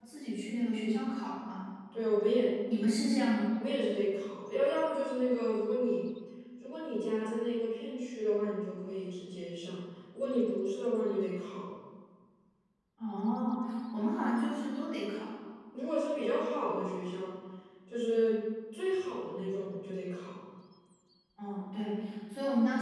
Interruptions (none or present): none